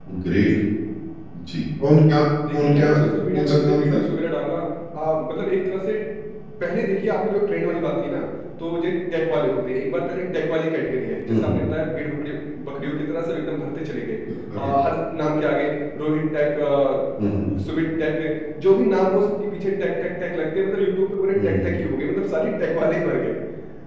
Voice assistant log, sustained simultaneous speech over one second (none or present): present